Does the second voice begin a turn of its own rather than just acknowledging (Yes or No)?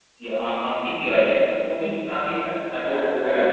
Yes